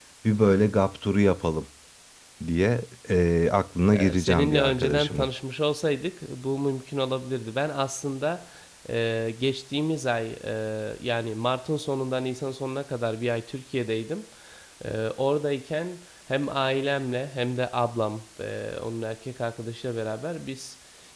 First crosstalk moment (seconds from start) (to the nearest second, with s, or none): 4 s